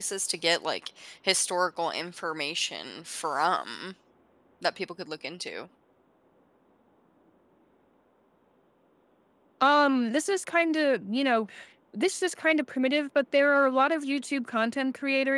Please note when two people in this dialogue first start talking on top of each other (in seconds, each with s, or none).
none